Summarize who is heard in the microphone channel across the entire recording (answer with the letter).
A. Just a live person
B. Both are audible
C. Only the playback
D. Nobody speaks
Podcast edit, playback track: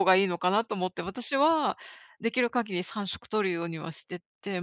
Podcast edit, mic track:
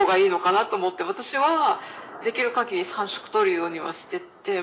C